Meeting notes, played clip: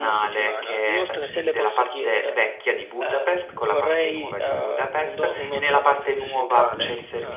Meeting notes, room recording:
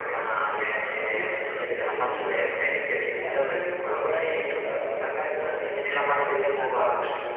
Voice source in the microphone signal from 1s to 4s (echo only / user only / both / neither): both